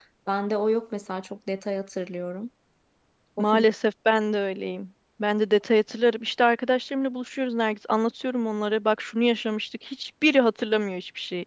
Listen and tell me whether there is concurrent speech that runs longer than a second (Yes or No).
No